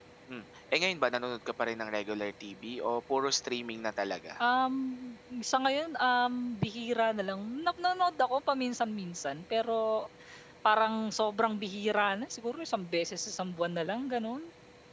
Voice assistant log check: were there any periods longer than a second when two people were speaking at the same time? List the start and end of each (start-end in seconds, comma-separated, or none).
none